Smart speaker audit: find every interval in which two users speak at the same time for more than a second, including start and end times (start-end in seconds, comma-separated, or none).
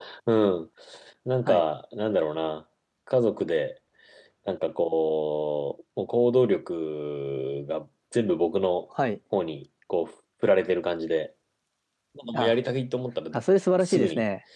none